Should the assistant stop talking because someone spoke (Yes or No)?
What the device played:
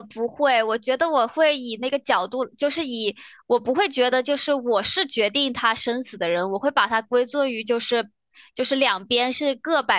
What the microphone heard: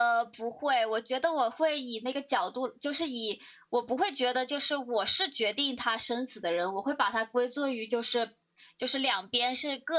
No